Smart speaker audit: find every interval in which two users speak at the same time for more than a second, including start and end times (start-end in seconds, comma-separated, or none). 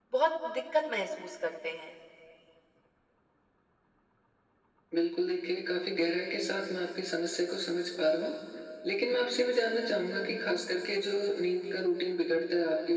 none